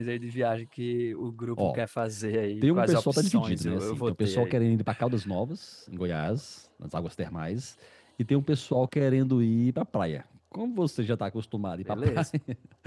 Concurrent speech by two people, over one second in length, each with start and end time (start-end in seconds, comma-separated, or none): 2.6-4.6